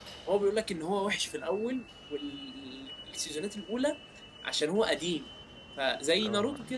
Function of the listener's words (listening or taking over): taking over